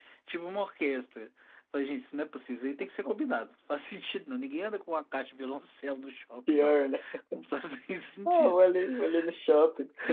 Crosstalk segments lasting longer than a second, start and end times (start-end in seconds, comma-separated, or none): none